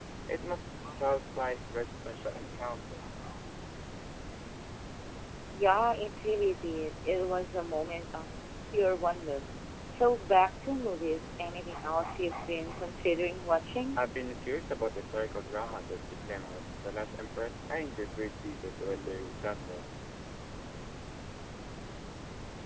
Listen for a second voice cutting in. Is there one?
No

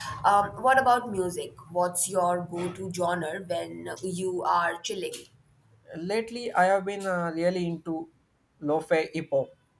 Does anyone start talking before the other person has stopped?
No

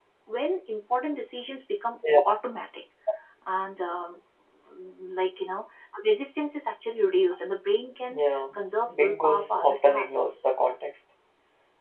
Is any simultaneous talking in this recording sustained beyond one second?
Yes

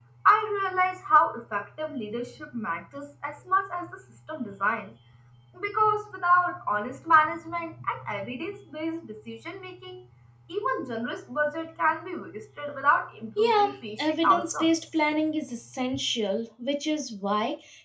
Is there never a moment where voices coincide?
No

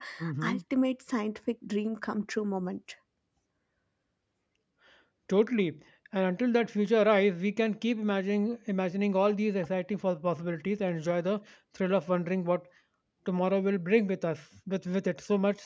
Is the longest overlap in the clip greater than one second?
No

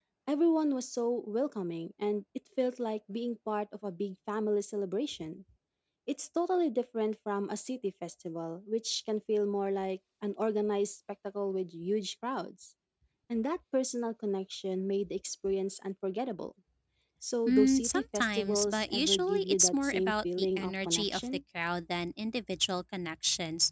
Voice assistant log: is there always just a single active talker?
No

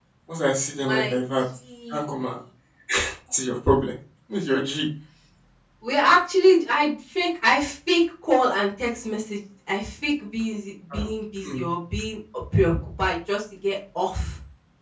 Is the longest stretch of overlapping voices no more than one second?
Yes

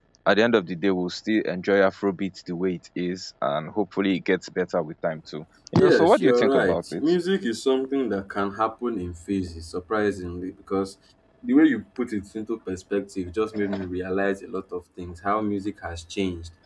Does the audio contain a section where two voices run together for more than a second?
Yes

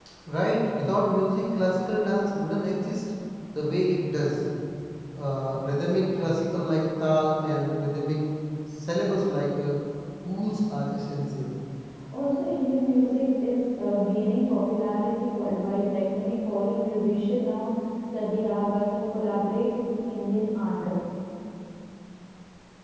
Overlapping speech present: No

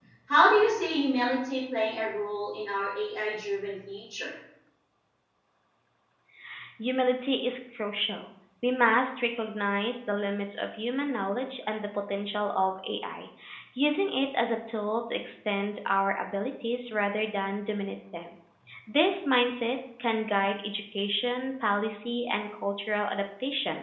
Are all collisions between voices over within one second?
Yes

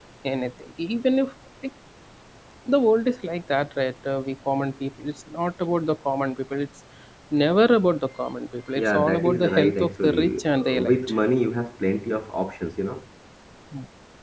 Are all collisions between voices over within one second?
No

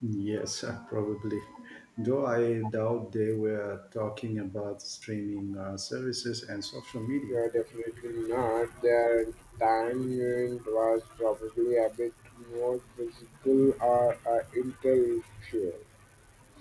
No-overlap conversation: Yes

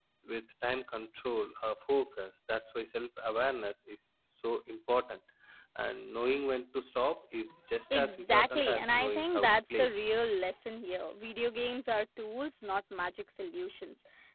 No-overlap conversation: No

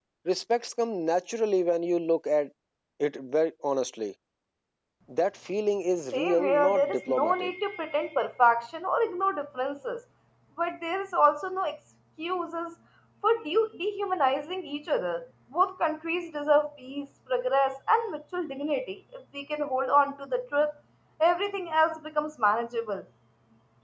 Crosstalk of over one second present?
Yes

